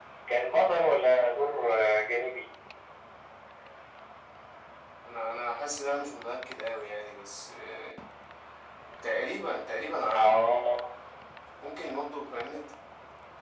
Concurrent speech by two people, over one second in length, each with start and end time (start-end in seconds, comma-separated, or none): none